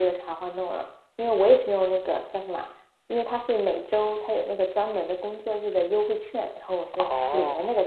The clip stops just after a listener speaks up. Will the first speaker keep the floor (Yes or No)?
No